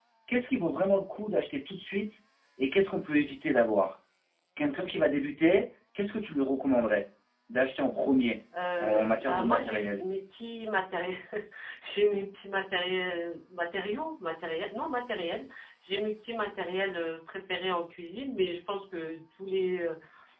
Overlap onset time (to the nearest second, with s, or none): 9 s